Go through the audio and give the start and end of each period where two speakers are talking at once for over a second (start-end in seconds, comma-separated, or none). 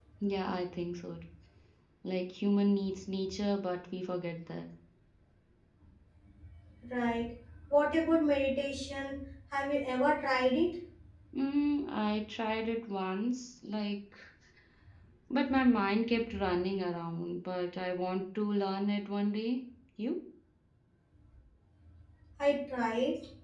none